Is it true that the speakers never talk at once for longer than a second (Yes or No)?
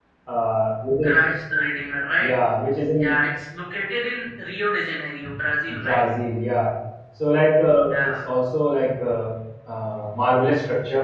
Yes